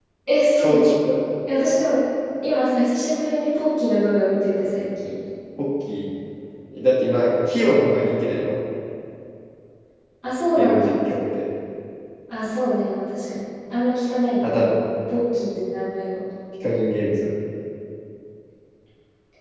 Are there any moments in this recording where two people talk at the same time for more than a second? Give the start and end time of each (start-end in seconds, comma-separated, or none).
none